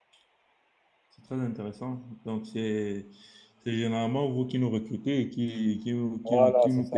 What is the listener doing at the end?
taking over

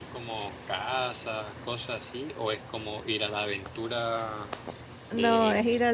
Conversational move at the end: taking over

